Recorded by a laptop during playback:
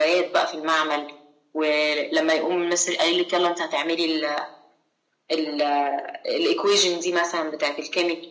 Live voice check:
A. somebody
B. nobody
B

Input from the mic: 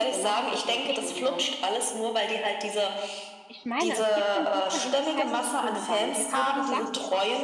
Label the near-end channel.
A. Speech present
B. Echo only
A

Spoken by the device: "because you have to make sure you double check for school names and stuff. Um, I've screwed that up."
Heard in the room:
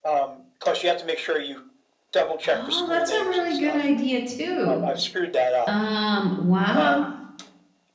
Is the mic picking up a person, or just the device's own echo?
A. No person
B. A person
B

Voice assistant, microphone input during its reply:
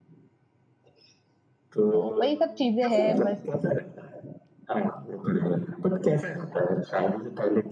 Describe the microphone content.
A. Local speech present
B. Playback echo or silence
A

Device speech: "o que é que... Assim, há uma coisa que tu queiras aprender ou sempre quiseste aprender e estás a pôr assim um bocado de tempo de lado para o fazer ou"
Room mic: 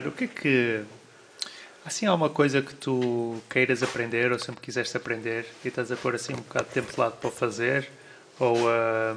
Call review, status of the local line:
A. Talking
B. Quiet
B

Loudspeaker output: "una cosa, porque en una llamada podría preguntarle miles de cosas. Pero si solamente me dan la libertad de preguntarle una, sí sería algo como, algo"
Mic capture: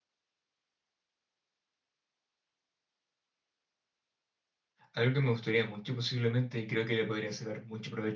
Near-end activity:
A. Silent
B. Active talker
B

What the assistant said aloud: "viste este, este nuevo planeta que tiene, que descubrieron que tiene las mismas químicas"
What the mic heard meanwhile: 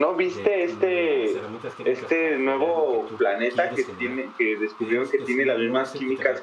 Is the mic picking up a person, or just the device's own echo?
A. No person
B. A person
B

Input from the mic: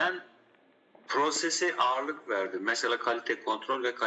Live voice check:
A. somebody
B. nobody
B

